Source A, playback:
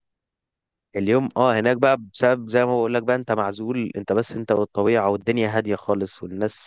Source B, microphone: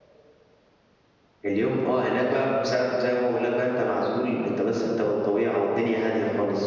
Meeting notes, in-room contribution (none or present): none